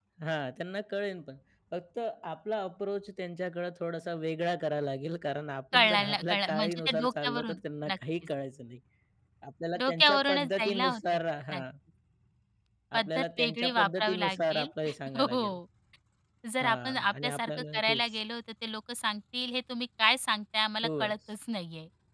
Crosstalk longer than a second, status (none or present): present